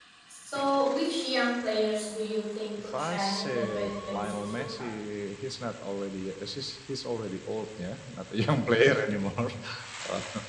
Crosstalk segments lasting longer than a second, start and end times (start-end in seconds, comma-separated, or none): 2.9-4.9